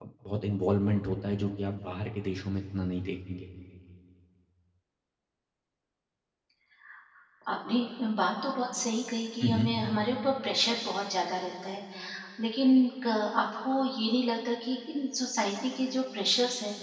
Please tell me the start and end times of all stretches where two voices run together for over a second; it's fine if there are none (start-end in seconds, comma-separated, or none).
none